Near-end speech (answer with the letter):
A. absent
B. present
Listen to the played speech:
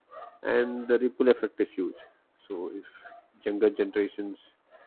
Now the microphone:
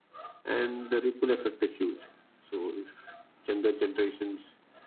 A